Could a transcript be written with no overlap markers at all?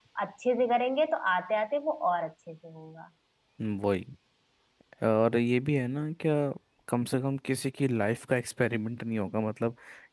Yes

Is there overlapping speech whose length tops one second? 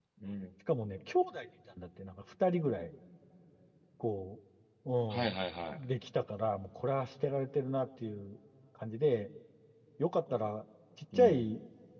No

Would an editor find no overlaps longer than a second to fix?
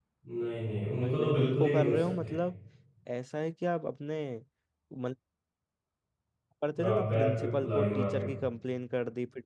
No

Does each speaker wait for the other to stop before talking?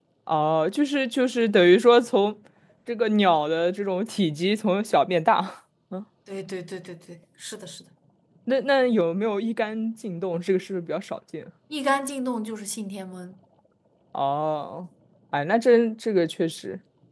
Yes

